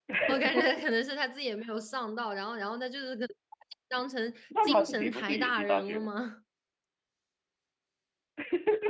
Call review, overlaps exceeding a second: present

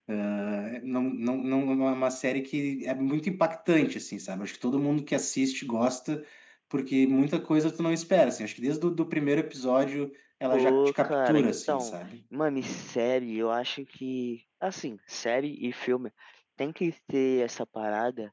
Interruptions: present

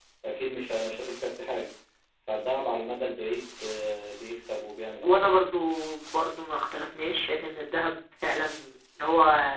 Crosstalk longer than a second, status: none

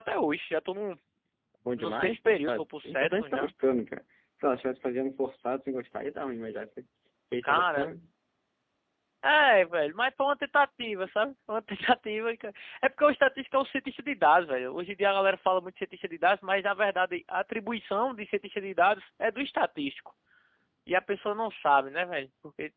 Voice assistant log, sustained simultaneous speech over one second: present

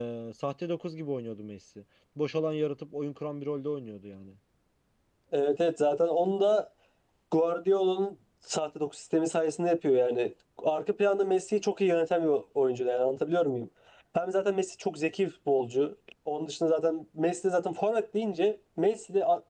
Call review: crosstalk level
none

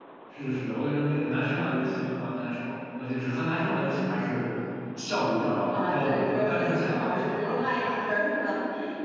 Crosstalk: present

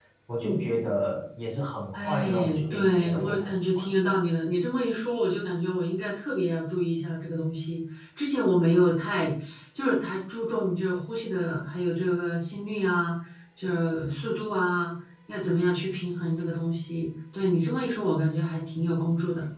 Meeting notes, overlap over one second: present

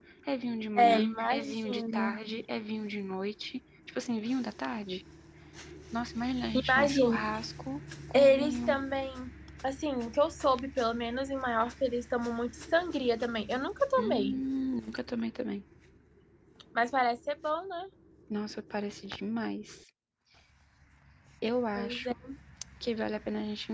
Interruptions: present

